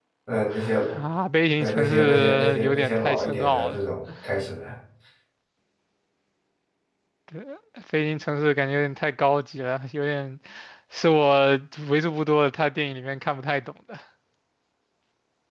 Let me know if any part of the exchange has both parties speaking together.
Yes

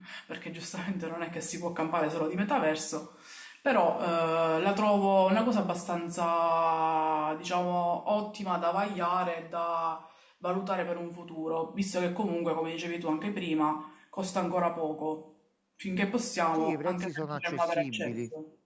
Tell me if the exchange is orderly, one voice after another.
No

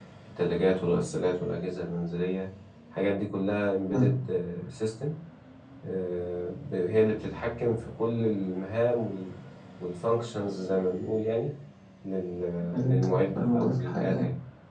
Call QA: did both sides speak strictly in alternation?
No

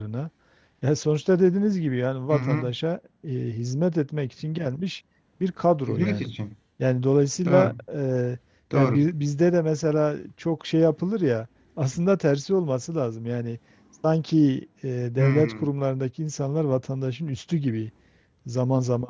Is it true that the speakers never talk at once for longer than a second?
Yes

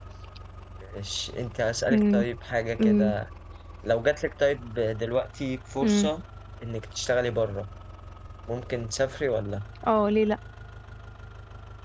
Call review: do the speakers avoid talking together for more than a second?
Yes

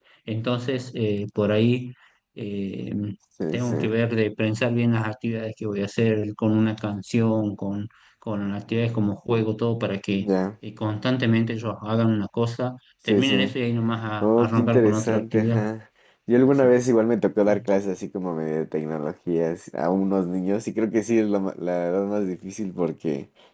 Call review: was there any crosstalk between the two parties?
Yes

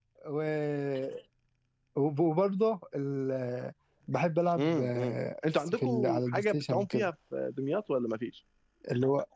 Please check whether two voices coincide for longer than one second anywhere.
Yes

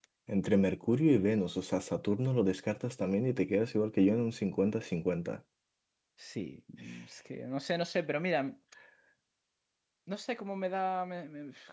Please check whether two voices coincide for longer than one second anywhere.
No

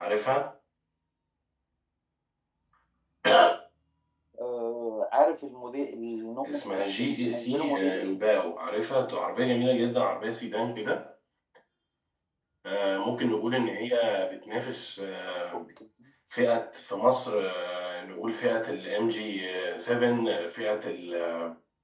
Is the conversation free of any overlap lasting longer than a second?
No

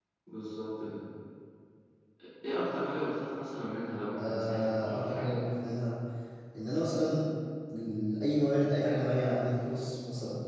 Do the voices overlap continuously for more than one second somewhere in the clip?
Yes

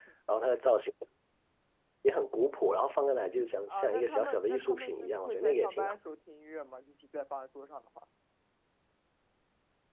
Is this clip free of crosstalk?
No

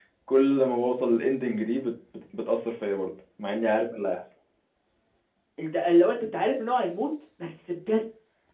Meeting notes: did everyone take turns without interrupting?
Yes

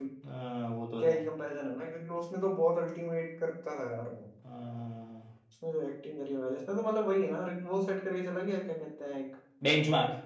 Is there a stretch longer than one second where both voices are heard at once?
No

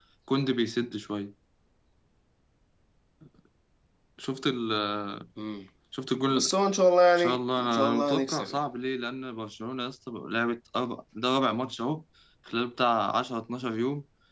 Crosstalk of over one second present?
Yes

